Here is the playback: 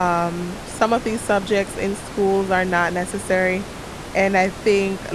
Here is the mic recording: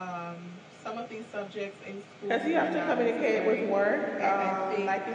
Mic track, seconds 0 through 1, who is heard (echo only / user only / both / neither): echo only